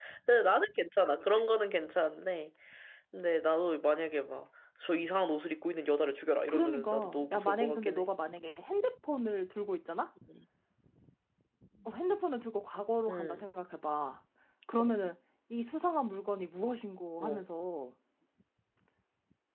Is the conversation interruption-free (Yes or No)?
No